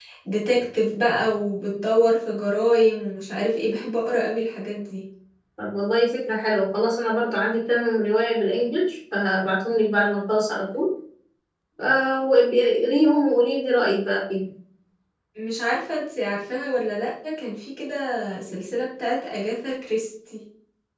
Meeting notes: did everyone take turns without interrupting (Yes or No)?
Yes